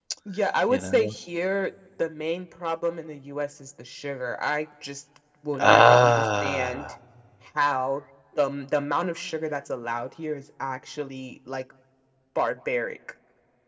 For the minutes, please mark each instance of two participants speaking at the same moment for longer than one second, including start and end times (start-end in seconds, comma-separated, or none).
5.7-6.9